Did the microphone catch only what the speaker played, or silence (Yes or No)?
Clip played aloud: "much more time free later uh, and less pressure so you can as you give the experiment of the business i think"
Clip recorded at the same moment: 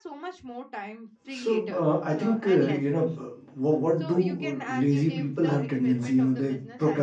No